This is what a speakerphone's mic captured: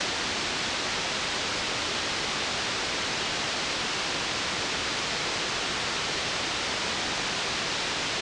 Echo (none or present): none